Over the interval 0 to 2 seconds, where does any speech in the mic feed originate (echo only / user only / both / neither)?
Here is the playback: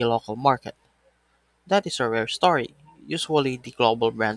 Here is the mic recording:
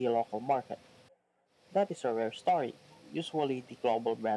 echo only